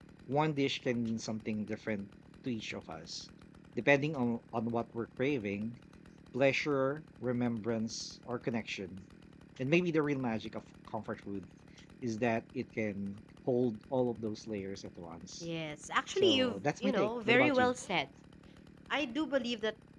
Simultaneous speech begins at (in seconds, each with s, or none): 16.1 s